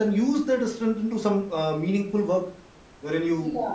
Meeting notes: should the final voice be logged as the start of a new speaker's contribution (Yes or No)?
No